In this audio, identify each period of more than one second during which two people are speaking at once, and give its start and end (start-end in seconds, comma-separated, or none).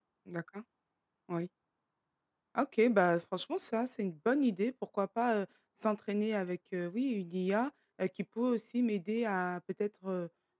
none